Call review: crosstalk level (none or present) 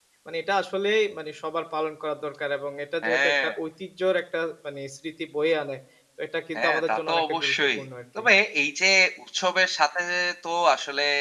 present